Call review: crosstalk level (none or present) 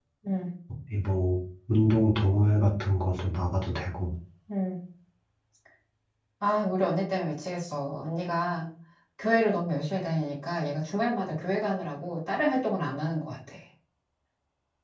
none